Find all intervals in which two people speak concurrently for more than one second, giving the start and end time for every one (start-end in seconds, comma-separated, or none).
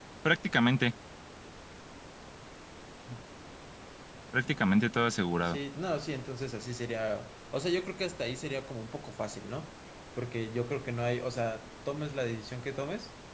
none